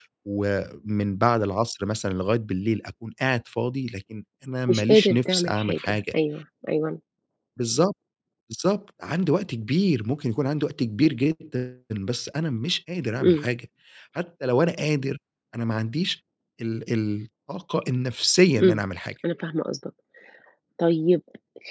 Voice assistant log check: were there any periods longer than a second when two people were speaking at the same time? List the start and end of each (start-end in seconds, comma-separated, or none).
4.7-6.0